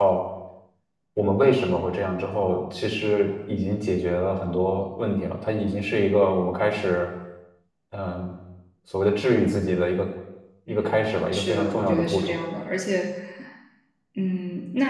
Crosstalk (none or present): present